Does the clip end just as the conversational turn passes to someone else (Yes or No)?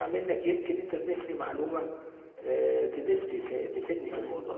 Yes